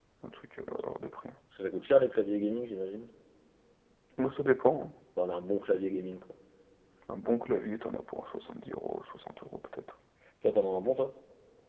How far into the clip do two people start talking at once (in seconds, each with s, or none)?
none